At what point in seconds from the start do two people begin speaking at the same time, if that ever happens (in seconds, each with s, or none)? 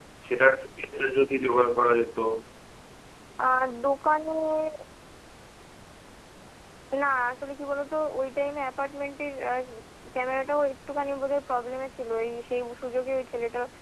none